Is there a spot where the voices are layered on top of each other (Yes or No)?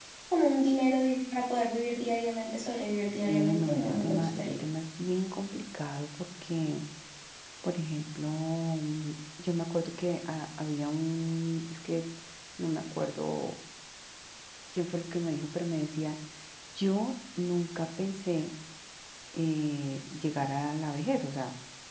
Yes